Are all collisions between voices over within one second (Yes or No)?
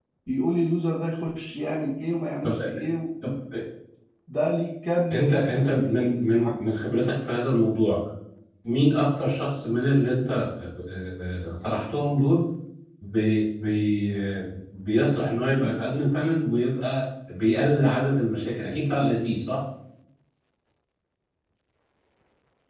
No